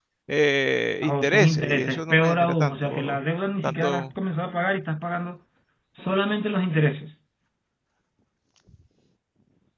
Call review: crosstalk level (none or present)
present